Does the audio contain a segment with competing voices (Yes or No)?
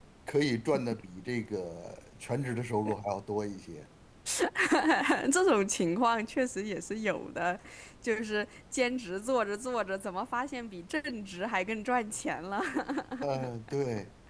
No